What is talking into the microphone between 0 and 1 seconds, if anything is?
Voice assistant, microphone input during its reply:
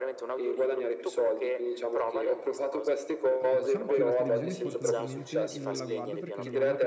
echo only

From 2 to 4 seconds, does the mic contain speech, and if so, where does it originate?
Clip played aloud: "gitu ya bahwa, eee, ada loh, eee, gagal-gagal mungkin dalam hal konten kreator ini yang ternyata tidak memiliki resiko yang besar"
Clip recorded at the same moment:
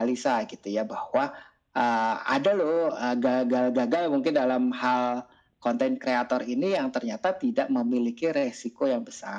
echo only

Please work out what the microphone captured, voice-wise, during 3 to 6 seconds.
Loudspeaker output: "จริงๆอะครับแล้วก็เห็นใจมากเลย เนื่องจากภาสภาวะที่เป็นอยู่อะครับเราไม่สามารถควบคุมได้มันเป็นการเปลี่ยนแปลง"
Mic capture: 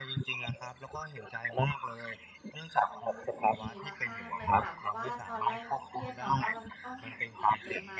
both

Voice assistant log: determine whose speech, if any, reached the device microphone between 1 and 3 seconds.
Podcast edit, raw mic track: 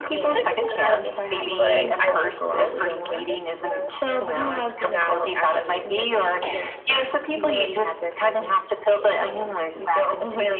both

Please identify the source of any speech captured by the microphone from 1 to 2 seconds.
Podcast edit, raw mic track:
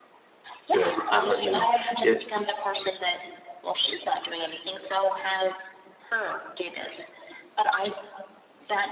both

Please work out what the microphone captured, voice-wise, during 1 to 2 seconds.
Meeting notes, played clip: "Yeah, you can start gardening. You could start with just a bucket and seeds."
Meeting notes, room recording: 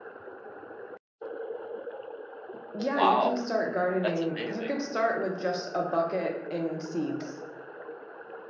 neither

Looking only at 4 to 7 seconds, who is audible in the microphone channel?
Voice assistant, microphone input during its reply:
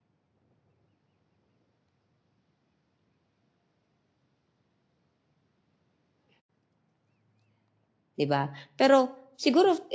neither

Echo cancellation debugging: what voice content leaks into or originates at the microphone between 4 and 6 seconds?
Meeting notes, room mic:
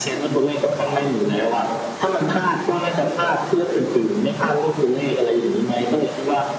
echo only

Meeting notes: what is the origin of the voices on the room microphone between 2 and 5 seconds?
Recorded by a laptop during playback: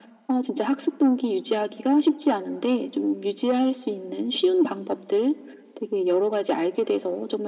echo only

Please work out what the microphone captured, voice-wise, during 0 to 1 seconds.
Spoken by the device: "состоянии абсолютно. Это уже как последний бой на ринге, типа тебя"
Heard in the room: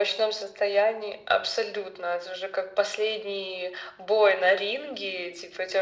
echo only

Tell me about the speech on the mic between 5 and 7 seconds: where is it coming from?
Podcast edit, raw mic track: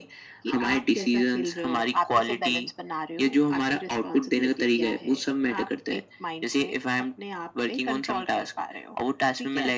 echo only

